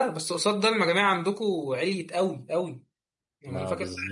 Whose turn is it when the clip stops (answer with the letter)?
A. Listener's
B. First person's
B